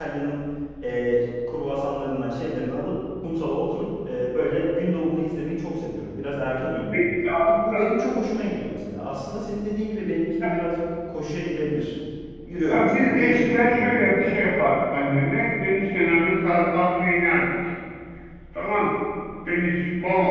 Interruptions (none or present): present